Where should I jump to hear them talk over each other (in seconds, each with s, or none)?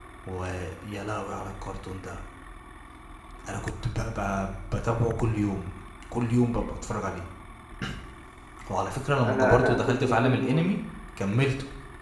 9.2 s